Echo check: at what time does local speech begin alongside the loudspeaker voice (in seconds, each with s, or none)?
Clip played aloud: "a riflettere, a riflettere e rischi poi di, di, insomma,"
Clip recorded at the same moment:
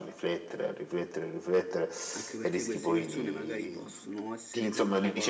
2.1 s